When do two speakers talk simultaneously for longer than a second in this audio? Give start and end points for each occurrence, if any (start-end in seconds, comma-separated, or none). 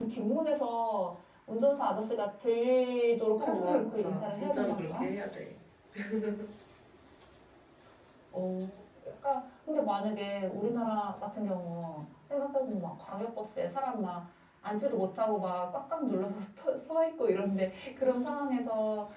3.4-5.1